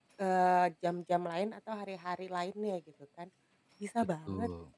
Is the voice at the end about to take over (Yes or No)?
No